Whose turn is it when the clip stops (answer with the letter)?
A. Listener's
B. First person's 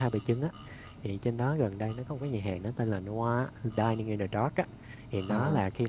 B